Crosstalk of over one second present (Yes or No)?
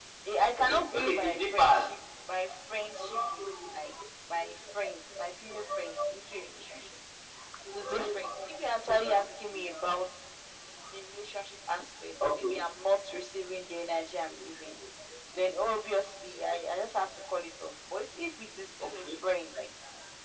Yes